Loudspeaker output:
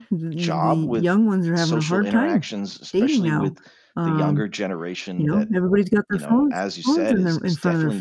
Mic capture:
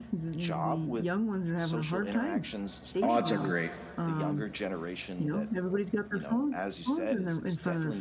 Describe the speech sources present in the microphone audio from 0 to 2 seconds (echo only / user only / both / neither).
echo only